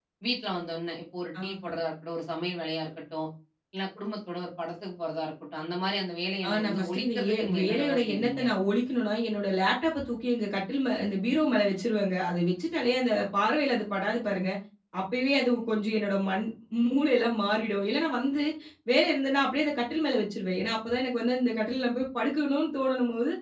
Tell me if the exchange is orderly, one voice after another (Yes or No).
No